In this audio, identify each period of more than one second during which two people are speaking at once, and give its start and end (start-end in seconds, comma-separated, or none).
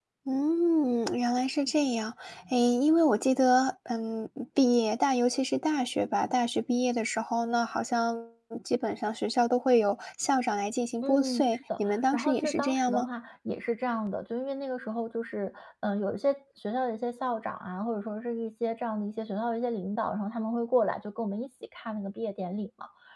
11.0-13.1